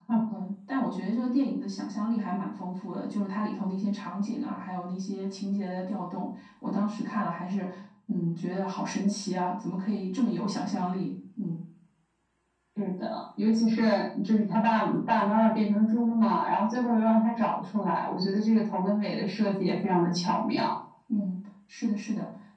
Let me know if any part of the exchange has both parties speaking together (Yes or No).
No